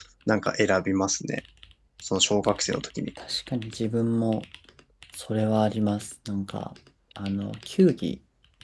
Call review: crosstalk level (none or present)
none